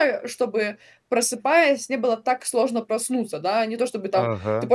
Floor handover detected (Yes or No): No